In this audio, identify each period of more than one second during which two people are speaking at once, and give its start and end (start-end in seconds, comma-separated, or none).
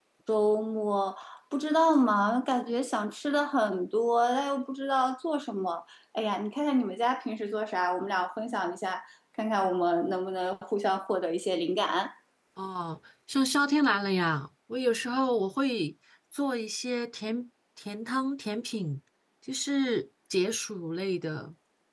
none